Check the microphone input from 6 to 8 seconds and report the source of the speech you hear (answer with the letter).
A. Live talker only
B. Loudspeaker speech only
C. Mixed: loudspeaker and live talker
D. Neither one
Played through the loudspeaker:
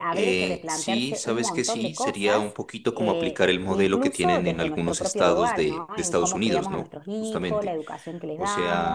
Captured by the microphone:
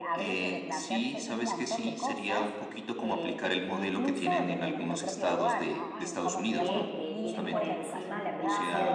C